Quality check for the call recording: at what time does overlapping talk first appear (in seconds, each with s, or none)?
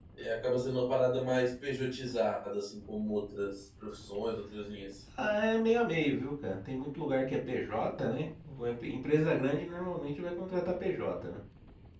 none